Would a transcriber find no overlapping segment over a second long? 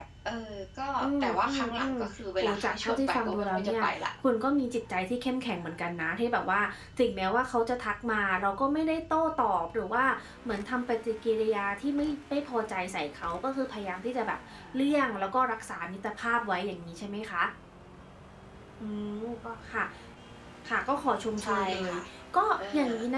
No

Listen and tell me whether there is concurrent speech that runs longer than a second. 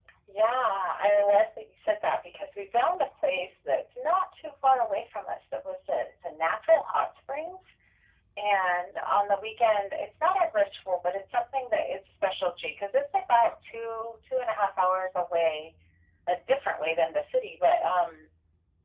No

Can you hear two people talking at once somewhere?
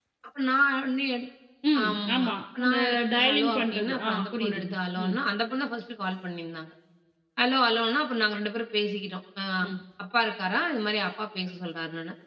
Yes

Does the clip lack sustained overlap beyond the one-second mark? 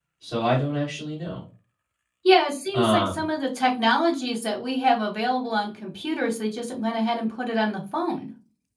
Yes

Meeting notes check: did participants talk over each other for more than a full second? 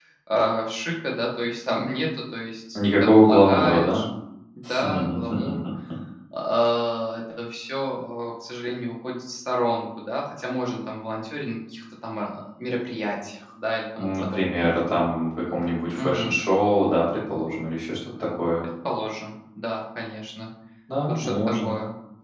Yes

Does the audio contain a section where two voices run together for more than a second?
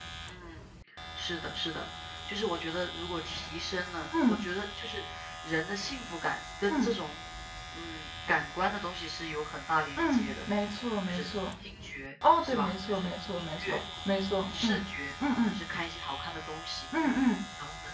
Yes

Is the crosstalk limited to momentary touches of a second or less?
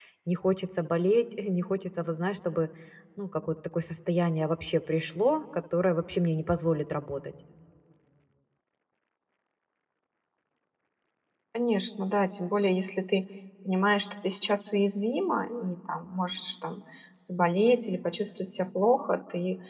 Yes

